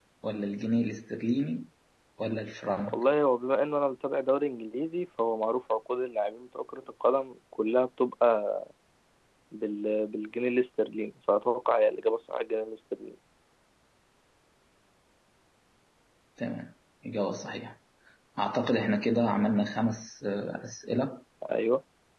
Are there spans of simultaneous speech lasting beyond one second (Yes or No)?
No